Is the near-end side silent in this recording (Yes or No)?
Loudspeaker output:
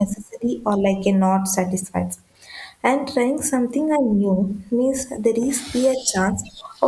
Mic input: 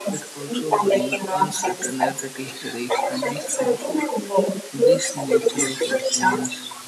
No